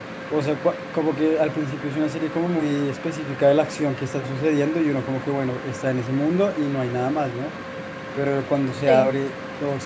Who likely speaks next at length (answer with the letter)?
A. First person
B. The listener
A